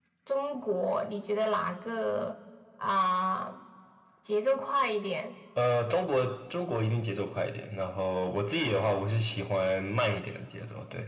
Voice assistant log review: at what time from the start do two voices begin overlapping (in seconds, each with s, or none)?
none